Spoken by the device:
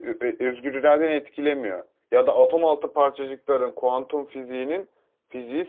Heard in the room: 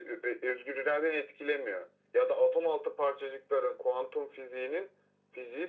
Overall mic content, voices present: echo only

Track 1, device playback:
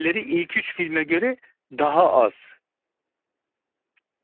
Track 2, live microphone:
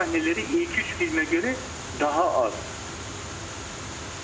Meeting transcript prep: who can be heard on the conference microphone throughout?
echo only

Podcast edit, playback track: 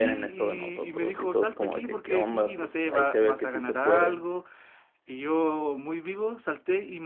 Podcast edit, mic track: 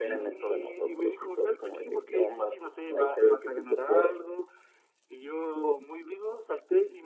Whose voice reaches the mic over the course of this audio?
echo only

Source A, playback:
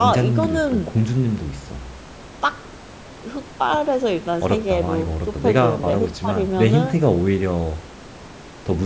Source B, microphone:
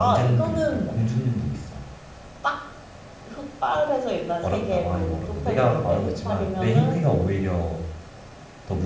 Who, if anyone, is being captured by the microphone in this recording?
echo only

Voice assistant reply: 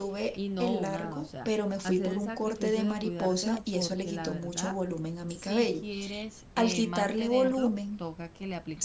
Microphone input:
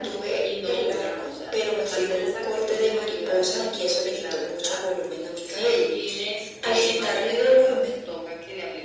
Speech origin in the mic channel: echo only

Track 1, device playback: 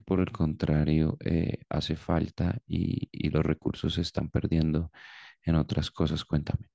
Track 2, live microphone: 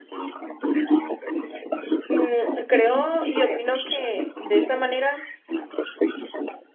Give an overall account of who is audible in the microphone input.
both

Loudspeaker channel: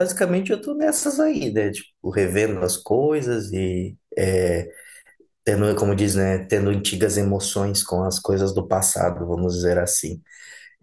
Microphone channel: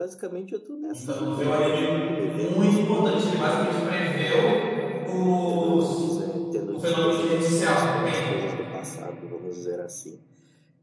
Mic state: both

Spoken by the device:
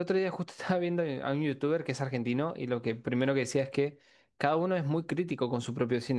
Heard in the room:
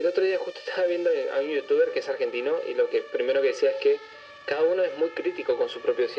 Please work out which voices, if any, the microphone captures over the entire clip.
echo only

